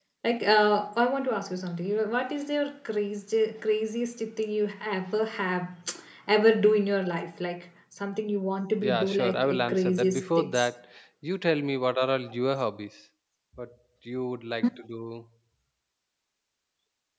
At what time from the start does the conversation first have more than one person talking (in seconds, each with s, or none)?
8.7 s